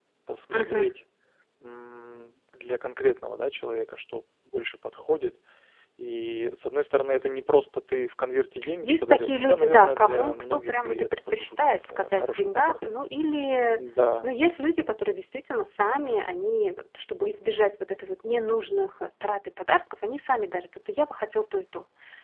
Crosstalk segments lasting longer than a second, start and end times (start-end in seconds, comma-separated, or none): 8.8-12.7